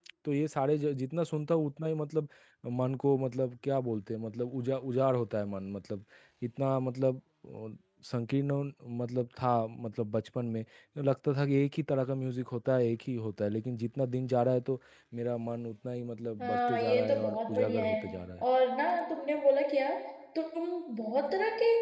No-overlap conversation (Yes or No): No